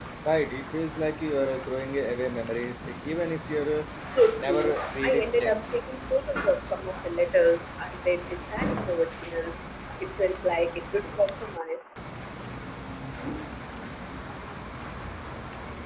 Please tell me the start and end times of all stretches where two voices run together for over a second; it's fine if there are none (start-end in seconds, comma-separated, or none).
4.4-5.6